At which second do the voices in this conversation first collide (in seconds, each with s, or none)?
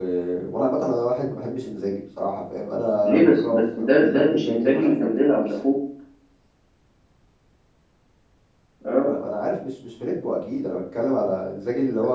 3.0 s